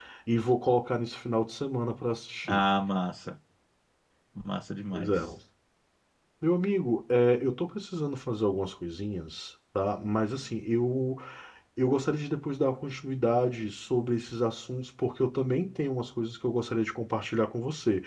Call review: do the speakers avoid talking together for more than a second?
Yes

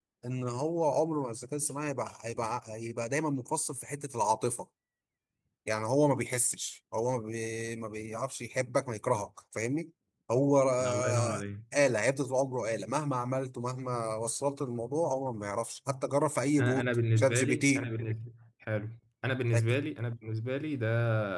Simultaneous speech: Yes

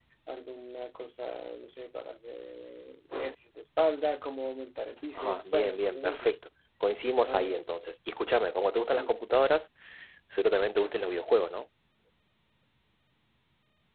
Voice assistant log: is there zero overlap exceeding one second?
No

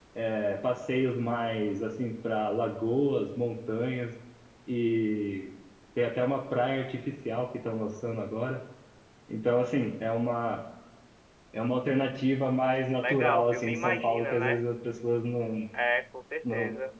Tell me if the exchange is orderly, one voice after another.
No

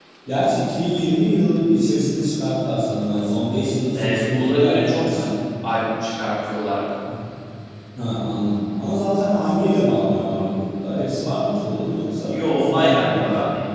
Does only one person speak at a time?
No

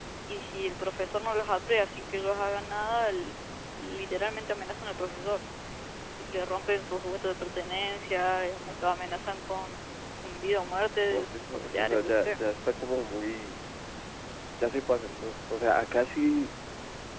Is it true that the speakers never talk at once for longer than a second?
No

